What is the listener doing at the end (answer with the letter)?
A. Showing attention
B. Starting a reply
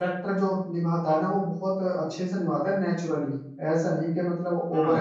B